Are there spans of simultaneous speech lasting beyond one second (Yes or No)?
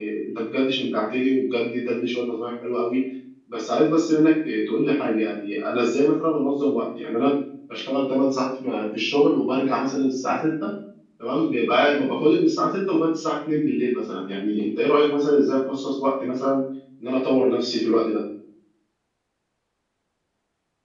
No